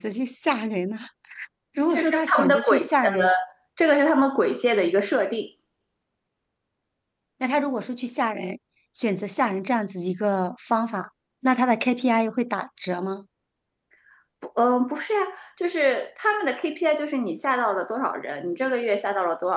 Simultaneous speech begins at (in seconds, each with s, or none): 1.9 s